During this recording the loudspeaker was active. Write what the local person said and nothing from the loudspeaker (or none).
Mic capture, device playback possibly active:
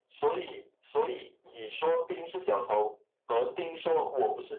none